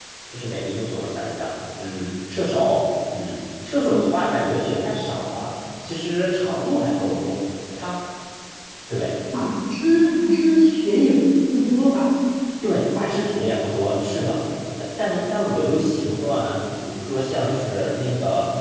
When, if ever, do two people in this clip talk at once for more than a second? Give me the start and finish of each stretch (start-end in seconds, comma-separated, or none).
none